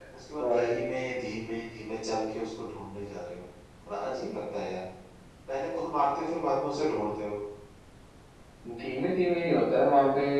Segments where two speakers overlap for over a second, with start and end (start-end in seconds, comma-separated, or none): none